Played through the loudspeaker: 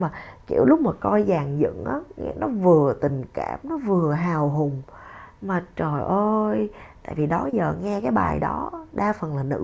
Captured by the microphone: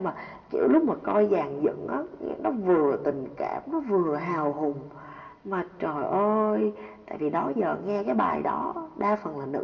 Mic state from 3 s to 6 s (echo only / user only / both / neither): echo only